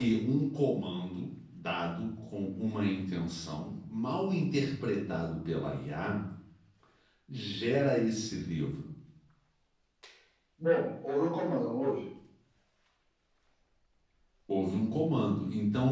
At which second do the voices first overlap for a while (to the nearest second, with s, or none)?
none